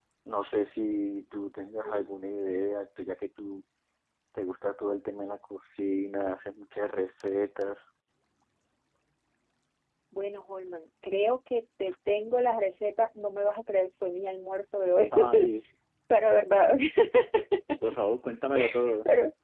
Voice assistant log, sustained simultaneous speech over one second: none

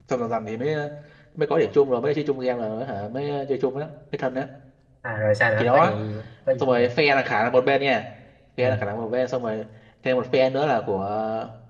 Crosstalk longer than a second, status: none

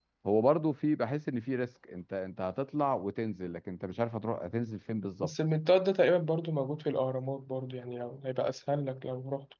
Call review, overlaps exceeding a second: none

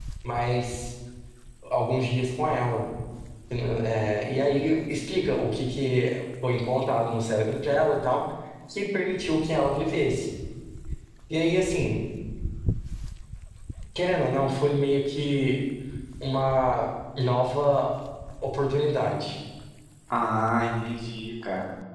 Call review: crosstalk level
none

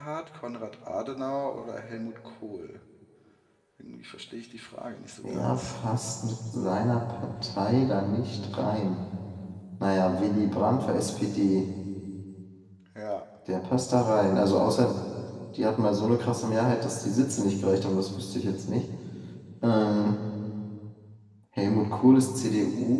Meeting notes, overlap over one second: none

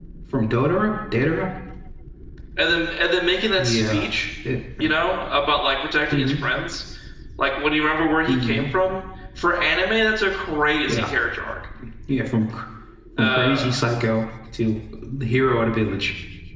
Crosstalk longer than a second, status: none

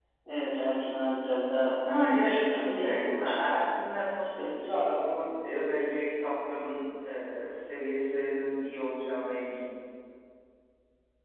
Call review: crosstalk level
present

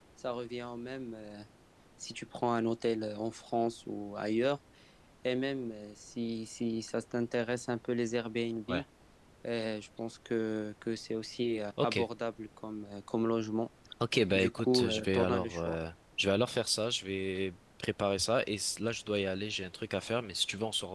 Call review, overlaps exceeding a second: present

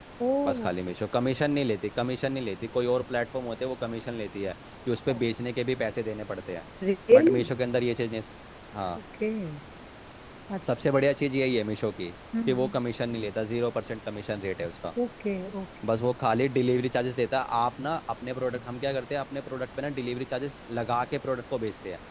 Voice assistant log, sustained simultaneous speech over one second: none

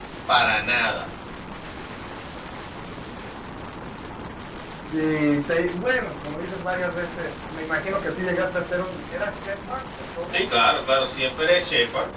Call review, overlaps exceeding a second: none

